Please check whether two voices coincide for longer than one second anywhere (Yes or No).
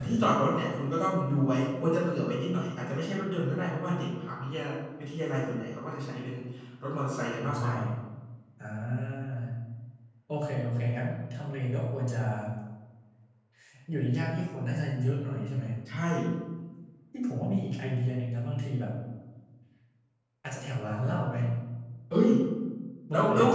No